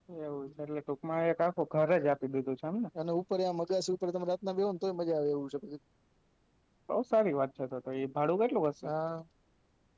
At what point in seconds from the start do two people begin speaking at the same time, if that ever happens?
none

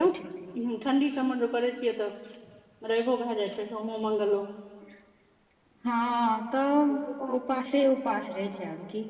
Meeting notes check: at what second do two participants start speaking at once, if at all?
none

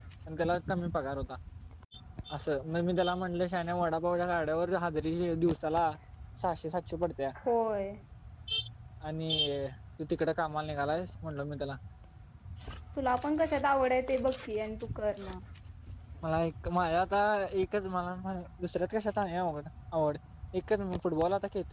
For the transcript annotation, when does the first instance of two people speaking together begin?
none

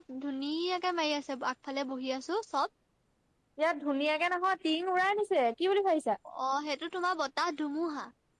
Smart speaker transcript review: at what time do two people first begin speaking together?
none

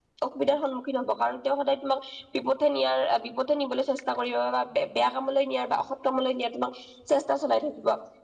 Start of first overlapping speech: none

